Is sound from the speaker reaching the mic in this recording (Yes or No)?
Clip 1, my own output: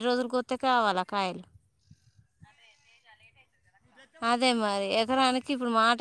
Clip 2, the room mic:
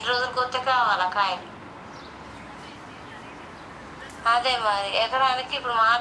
Yes